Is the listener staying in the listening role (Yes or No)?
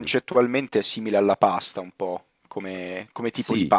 No